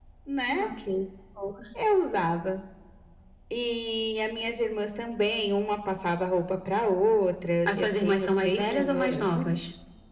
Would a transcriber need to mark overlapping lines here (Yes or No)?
Yes